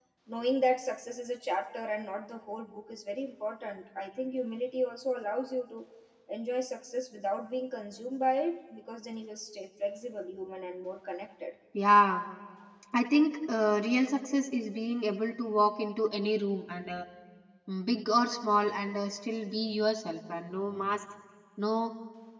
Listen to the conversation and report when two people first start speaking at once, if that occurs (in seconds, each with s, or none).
none